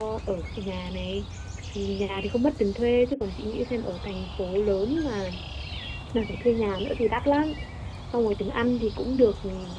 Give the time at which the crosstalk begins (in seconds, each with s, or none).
none